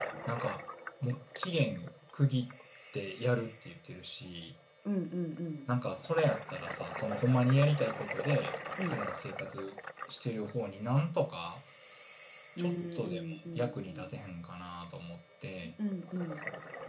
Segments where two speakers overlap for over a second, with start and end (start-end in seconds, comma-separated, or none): 12.6-14.1